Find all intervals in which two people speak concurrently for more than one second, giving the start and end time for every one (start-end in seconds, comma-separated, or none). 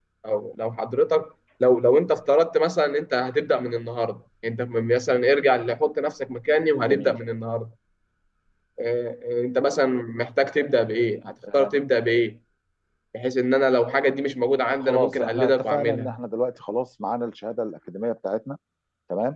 14.7-16.1